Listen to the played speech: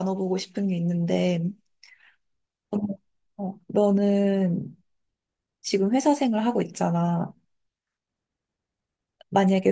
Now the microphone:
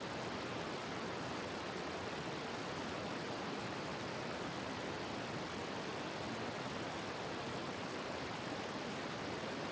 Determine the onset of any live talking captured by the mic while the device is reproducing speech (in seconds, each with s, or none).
none